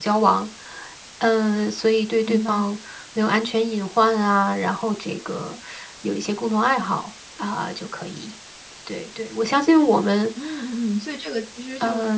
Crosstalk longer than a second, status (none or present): none